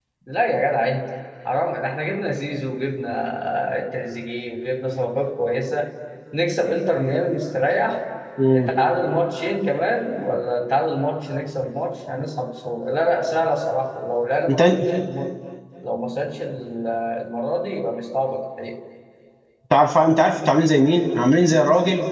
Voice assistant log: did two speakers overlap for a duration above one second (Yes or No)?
No